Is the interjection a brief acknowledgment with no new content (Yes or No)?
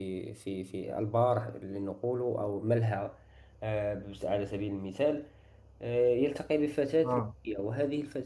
Yes